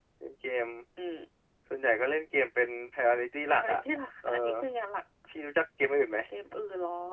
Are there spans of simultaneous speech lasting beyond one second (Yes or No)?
No